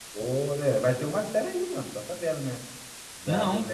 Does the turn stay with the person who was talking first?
Yes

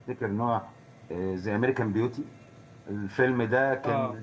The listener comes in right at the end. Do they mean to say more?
No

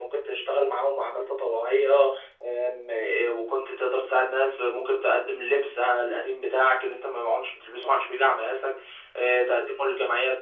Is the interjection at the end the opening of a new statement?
No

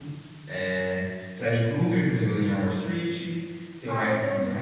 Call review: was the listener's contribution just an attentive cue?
No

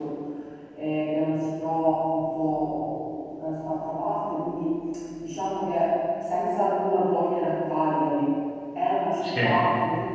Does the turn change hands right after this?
No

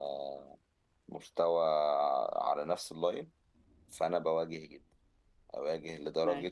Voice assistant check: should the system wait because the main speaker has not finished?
Yes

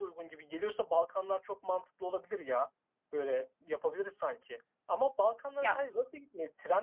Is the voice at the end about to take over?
No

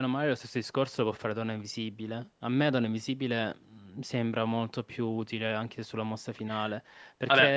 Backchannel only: Yes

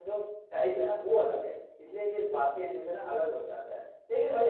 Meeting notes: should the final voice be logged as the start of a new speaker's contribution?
No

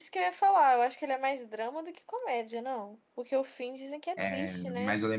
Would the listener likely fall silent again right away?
No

